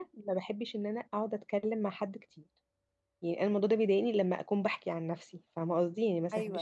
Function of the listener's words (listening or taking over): listening